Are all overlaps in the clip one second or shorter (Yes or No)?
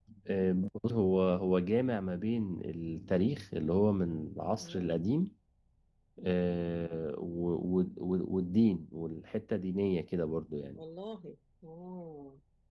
Yes